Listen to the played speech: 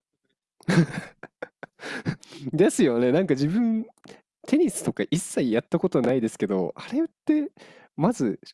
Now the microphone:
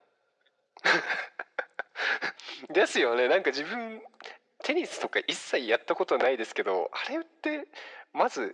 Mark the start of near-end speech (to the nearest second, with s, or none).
none